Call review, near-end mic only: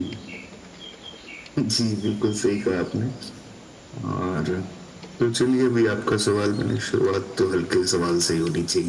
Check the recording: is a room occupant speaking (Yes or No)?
No